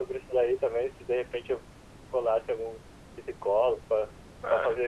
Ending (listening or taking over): listening